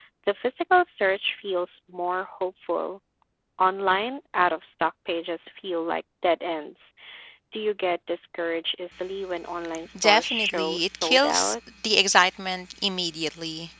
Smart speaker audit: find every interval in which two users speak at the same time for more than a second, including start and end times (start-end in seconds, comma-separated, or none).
10.0-11.6